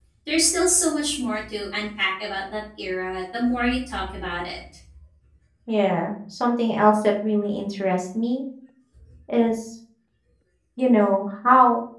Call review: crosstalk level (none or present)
none